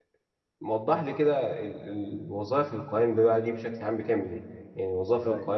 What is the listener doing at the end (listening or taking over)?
listening